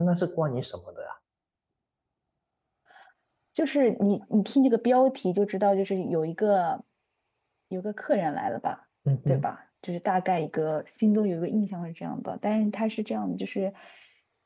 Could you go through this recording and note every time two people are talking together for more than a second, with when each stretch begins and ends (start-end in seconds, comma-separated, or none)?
none